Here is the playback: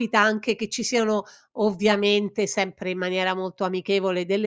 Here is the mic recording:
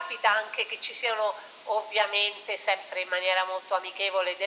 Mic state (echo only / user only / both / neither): echo only